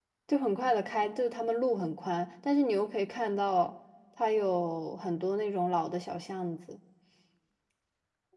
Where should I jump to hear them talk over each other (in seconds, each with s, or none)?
none